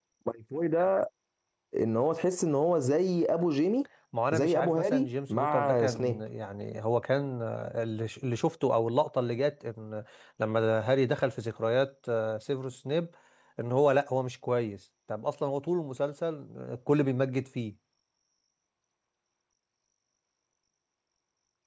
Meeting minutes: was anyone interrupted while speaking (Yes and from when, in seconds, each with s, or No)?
Yes, from 4.3 s